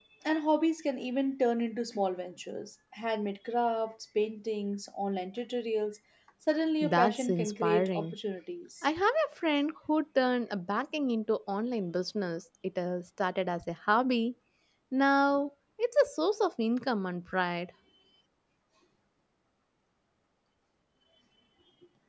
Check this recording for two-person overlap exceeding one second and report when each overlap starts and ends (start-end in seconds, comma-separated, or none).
6.8-8.1